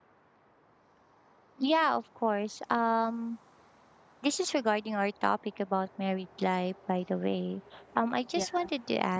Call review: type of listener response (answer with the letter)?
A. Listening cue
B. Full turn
A